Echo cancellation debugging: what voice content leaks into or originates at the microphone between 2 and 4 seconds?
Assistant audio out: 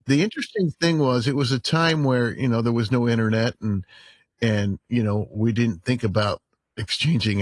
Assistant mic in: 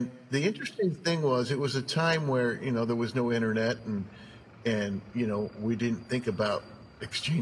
echo only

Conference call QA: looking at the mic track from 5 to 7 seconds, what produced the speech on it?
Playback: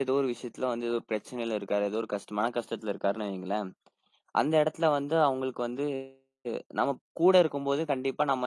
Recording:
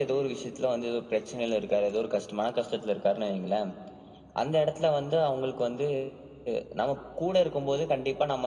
echo only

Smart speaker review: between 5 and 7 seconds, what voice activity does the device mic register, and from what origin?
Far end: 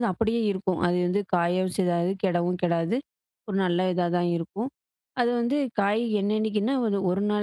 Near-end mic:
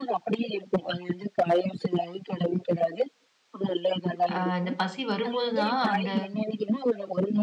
both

